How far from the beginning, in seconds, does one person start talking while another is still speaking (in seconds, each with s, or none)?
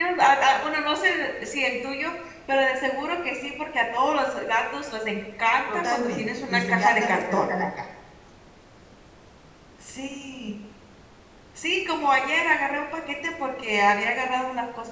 5.7 s